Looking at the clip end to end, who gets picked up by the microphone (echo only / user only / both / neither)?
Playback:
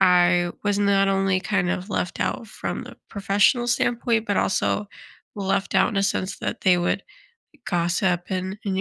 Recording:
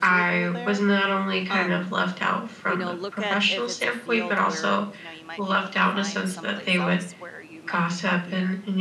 both